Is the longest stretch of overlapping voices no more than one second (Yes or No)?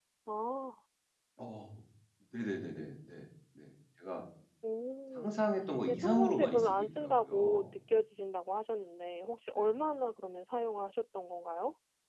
No